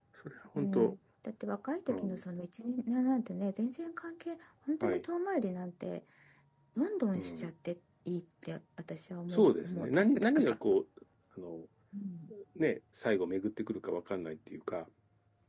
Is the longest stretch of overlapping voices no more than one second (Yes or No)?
No